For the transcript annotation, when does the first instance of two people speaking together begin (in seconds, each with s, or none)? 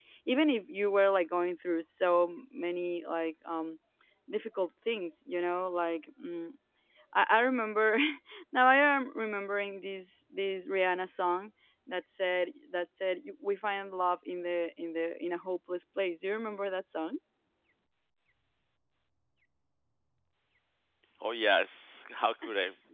none